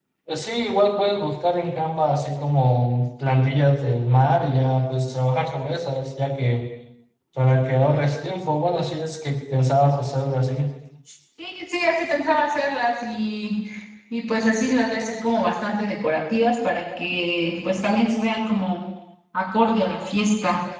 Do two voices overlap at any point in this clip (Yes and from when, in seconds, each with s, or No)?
No